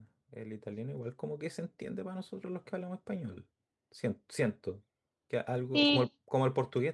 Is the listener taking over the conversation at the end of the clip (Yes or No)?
No